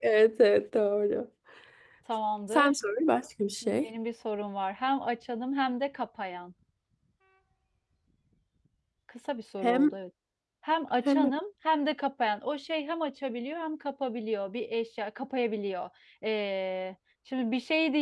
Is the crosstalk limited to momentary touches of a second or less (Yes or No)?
Yes